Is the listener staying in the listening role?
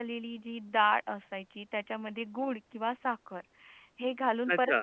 Yes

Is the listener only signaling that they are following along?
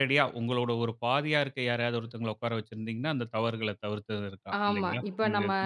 No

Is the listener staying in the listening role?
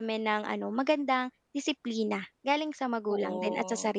No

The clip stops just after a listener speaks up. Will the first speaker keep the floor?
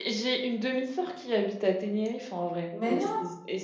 Yes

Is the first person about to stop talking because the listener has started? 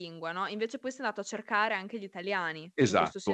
Yes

